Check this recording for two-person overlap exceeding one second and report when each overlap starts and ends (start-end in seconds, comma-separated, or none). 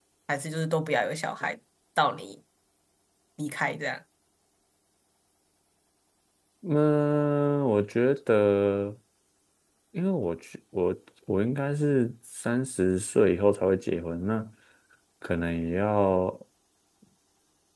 none